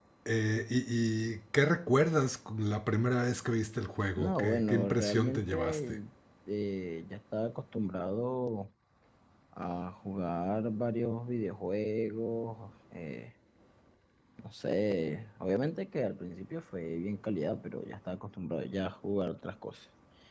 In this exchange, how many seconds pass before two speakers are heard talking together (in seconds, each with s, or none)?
4.2 s